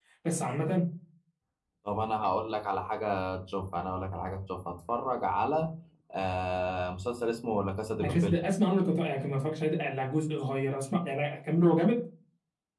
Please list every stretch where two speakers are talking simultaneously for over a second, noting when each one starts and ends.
none

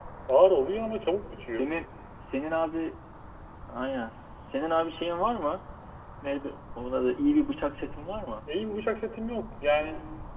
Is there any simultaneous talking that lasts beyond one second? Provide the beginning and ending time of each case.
none

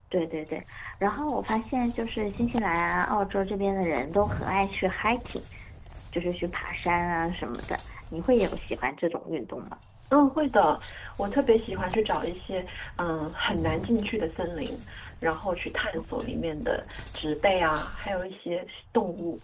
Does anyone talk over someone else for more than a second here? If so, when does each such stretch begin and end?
none

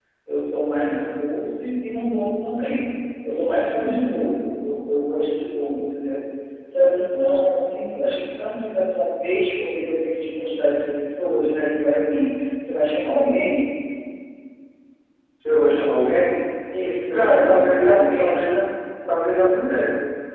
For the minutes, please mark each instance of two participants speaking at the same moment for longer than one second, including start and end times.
17.1-18.4

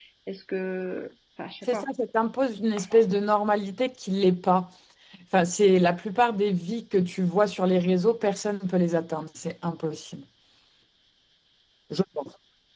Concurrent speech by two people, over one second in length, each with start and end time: none

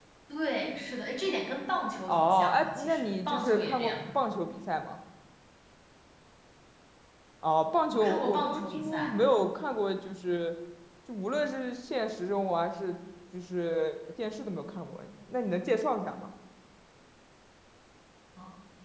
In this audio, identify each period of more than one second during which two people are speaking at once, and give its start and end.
2.1-3.9, 7.9-9.1

